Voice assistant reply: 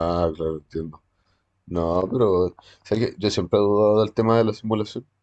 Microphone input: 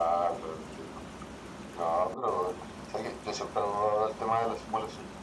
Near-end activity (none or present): none